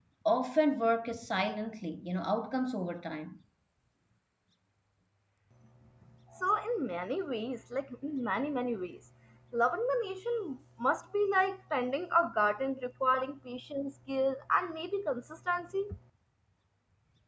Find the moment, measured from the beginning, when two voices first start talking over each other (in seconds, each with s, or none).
none